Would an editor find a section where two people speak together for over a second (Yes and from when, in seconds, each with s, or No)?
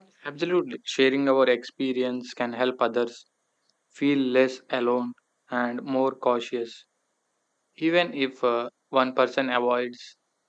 No